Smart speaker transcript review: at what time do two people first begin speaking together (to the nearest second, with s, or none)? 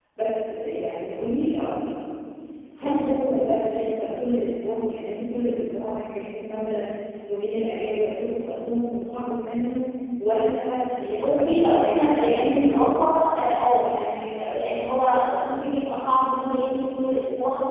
11 s